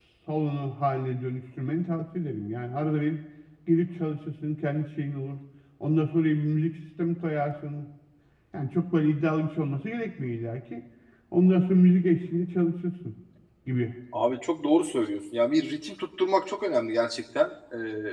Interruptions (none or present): none